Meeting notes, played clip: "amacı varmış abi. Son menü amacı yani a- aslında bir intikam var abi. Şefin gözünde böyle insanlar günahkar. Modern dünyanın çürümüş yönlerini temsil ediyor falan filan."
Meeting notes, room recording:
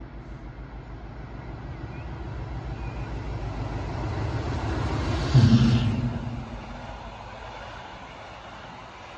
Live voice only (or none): Hı hı.